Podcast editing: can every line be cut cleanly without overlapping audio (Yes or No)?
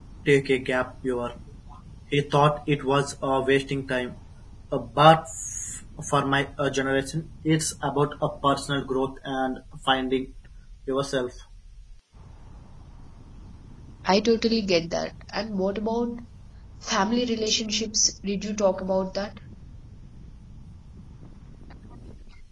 Yes